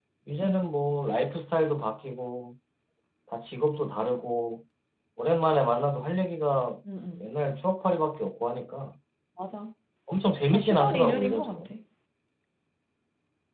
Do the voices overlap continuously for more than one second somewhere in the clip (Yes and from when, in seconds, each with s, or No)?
Yes, from 10.4 s